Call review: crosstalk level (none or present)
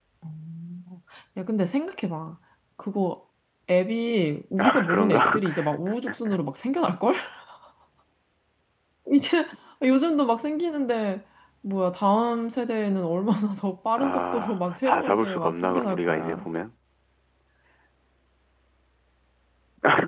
present